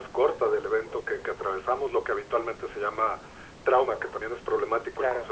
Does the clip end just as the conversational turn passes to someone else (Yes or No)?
No